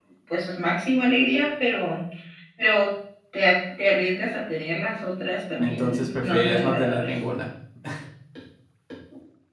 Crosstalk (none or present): present